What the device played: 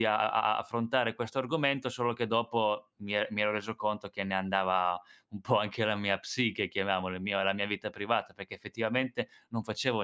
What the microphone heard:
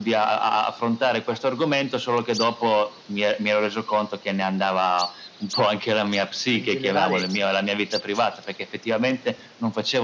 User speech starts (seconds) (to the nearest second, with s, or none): 6 s